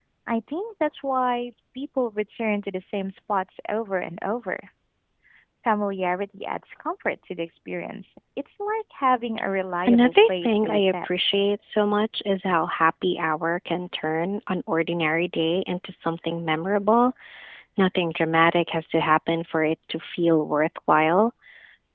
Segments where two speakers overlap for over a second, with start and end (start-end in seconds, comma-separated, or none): 9.8-11.1